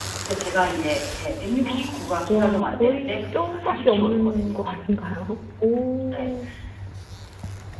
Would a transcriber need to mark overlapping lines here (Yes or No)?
Yes